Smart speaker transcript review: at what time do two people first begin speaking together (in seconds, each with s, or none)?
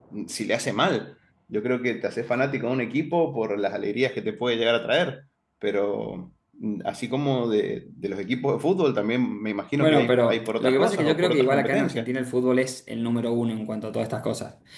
9.8 s